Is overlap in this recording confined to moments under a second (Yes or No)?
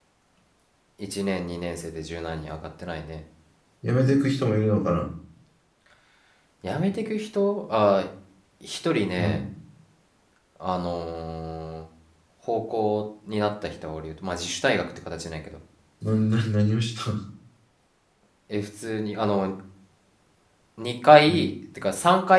Yes